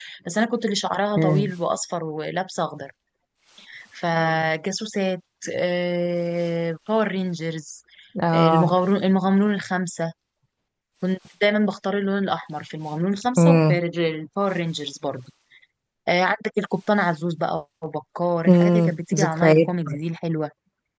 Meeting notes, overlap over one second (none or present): present